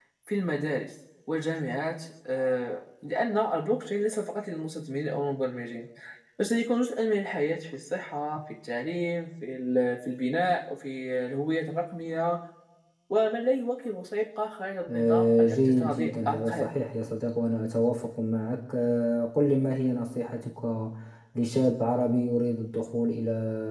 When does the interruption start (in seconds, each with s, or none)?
14.9 s